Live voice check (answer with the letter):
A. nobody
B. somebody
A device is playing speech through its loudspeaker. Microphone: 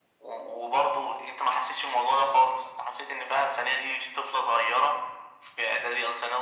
A